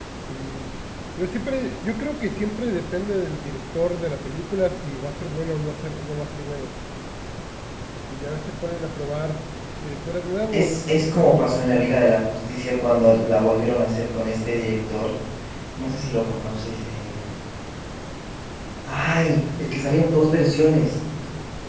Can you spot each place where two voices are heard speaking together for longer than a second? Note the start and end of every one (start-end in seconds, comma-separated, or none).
10.5-12.0